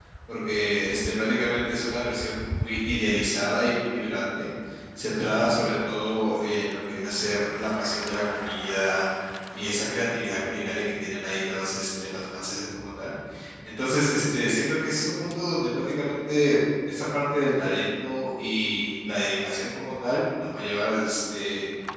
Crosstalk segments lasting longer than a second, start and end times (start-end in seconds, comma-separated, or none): none